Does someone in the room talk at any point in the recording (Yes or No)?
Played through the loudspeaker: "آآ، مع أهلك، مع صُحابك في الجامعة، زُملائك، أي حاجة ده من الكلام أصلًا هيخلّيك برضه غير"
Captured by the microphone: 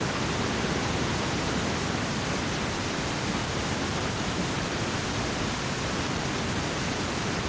No